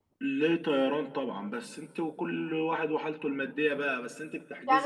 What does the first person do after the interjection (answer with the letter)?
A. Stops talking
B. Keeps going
A